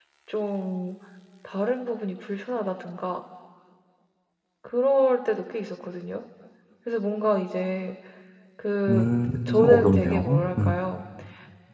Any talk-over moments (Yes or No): Yes